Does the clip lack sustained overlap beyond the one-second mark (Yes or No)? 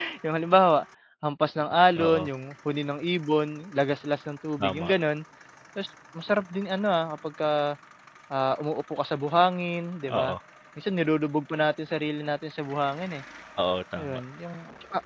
Yes